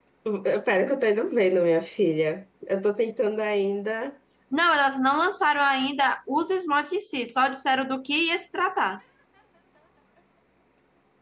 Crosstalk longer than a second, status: none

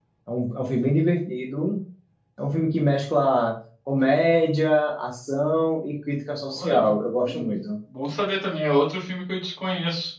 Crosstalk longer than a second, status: none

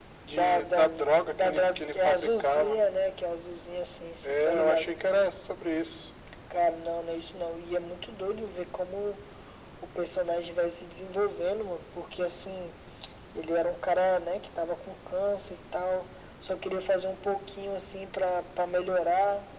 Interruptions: present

